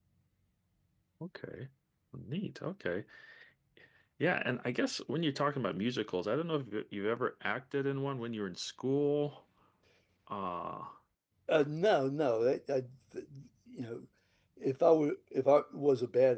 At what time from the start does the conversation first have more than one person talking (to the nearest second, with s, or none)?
none